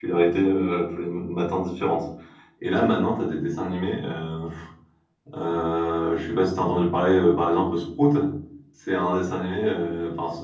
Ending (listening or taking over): listening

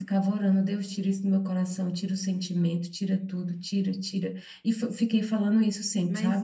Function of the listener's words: taking over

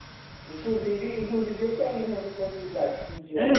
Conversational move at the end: taking over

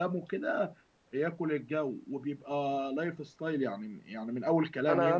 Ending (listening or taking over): taking over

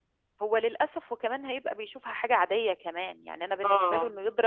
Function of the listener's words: listening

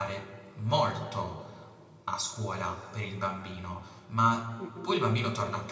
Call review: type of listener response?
listening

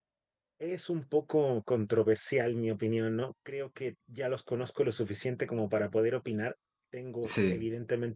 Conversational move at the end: listening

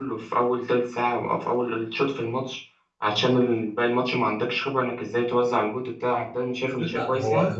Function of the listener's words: taking over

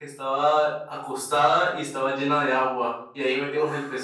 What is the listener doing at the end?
listening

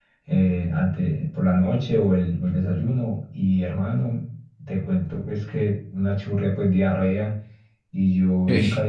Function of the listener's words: listening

